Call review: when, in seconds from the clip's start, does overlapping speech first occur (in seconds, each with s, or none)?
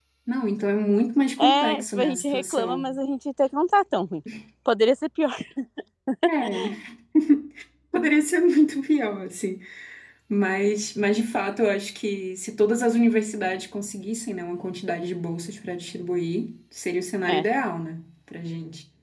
1.4 s